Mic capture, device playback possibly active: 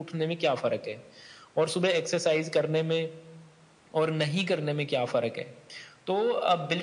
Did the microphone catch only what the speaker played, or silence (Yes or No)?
Yes